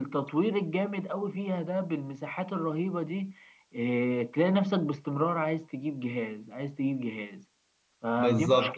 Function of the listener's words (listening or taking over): taking over